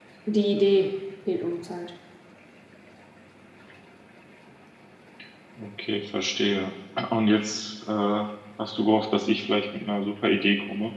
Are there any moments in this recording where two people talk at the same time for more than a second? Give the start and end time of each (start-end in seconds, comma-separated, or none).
none